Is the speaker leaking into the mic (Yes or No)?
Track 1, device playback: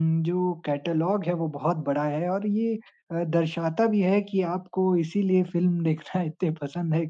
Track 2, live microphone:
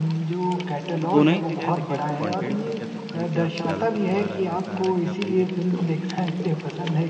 Yes